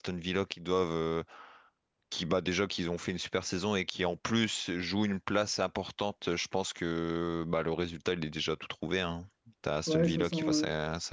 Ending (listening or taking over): taking over